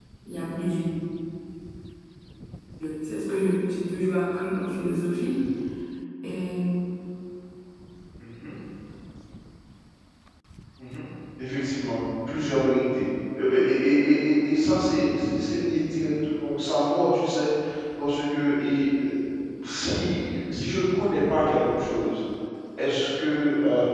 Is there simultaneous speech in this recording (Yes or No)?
No